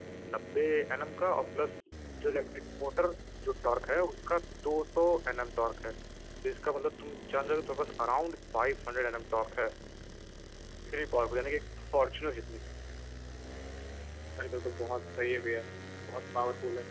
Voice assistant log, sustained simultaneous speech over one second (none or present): none